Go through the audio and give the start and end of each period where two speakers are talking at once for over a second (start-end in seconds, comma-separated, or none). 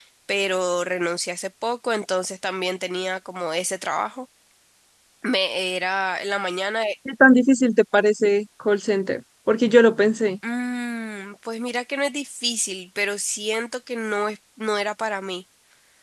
none